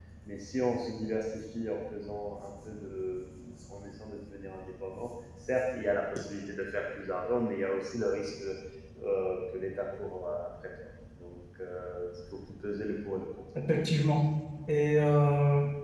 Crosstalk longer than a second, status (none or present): none